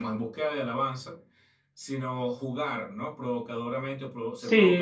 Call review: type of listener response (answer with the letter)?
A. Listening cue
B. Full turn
B